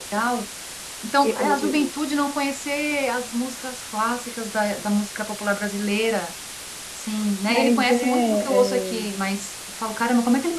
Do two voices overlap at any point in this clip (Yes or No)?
Yes